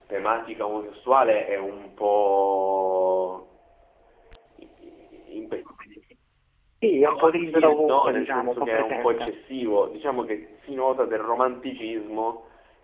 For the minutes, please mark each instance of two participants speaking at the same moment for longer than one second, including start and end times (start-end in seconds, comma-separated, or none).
7.0-9.3